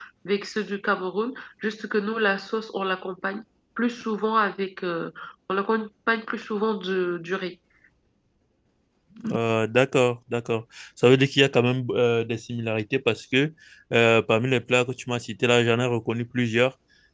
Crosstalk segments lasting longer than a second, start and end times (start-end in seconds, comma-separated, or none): none